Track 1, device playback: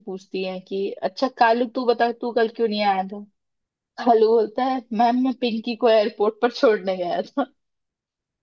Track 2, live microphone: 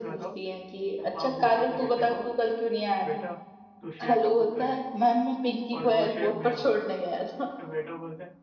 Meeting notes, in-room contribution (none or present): present